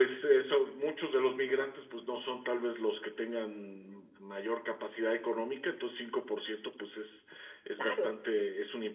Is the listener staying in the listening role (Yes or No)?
Yes